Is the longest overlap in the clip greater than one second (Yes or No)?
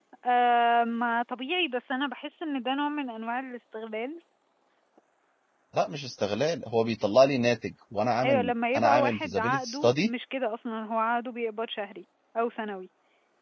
Yes